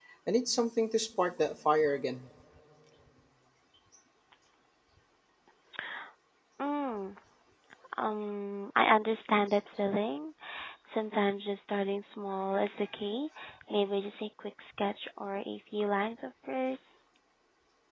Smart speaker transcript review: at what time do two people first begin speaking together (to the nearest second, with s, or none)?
none